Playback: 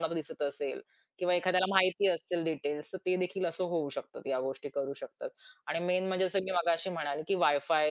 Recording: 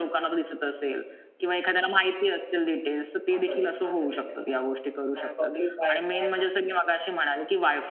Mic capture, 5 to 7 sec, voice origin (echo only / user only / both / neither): both